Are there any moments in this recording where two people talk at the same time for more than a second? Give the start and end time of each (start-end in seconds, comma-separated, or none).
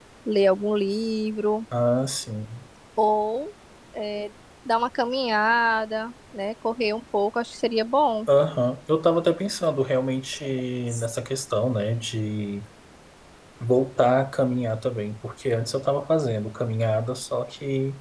none